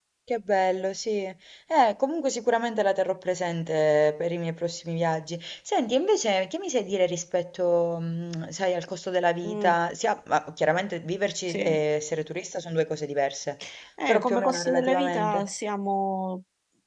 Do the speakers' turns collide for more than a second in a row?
Yes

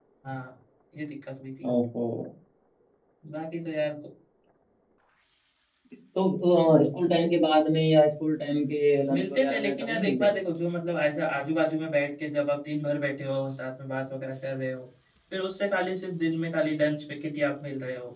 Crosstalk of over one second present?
Yes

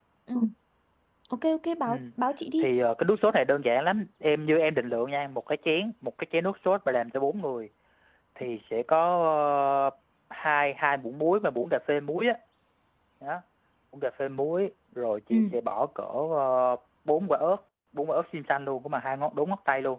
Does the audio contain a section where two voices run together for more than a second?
No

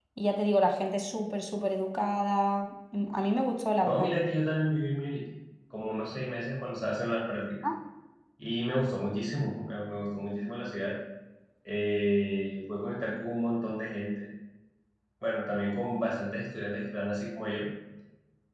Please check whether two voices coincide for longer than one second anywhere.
No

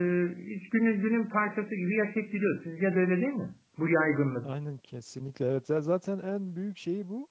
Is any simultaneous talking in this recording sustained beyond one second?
No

